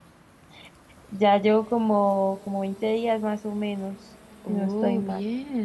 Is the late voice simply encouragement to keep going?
No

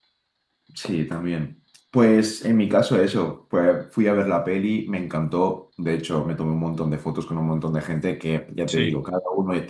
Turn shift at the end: No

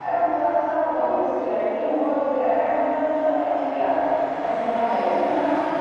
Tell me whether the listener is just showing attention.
Yes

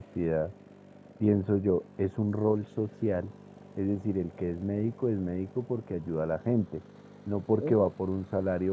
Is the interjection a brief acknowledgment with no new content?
Yes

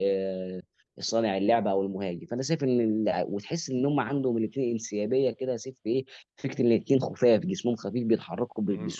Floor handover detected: Yes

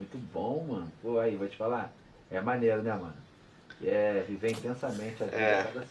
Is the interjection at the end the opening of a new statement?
Yes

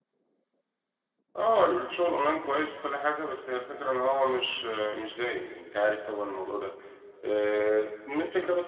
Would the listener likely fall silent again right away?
Yes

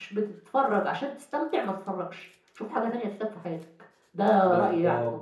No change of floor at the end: No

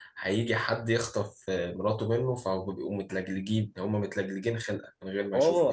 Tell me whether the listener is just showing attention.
No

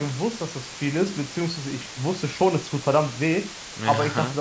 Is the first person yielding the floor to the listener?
No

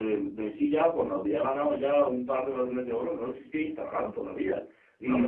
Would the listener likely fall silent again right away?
Yes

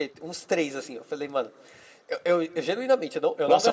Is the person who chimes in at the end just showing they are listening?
No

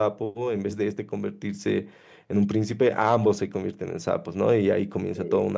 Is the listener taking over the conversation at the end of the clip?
No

